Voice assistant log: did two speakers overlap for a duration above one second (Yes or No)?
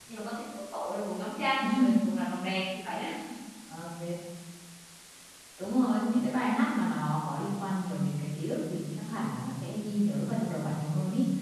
No